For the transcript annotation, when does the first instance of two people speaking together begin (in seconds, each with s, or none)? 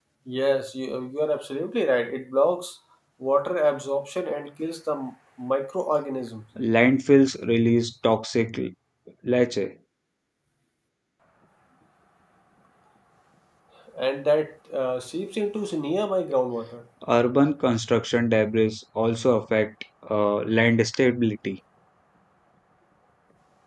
none